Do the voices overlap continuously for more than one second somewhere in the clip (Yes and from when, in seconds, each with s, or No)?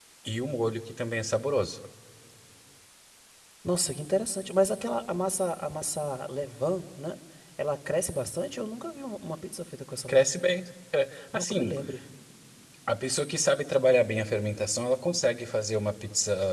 No